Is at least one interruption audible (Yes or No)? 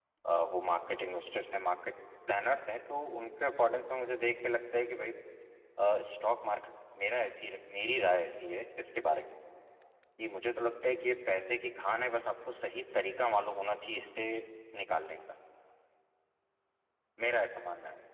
No